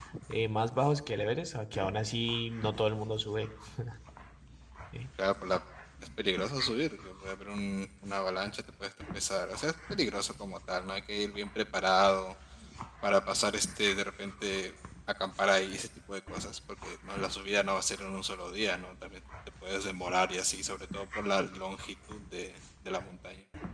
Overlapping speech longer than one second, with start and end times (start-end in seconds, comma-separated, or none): none